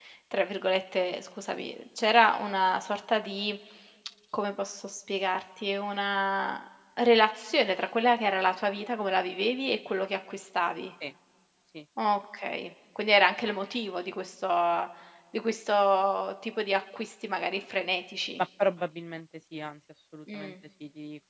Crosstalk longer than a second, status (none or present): none